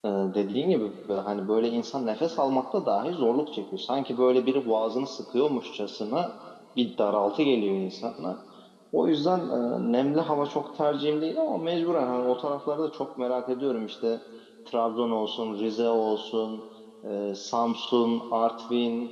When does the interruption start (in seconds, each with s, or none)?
none